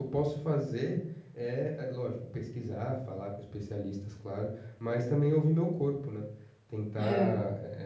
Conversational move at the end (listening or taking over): listening